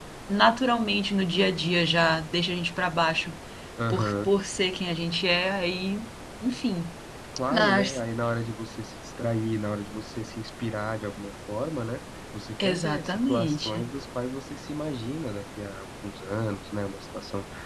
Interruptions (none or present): present